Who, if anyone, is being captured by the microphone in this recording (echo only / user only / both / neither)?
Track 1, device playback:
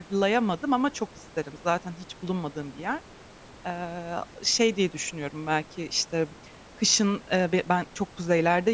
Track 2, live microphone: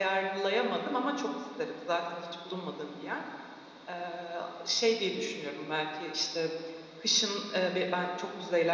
echo only